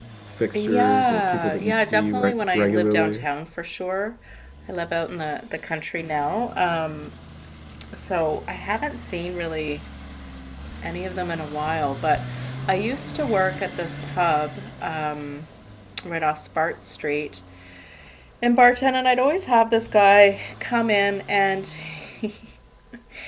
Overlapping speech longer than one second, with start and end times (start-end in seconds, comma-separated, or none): 0.5-3.2